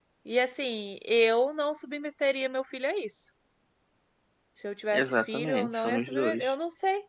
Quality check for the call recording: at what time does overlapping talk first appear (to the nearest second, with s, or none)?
5 s